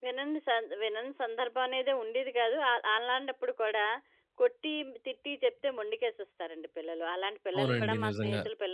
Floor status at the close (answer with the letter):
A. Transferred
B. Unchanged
B